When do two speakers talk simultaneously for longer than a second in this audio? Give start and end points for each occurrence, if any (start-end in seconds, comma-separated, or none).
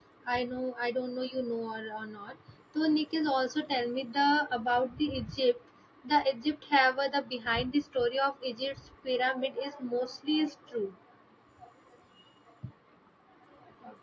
none